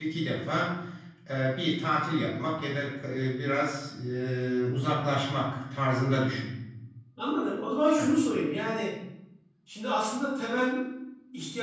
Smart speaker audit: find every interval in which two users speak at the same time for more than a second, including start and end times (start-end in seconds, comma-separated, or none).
none